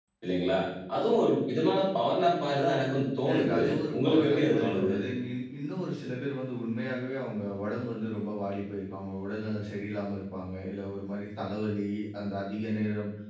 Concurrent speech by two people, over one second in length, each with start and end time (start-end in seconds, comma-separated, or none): 3.3-4.9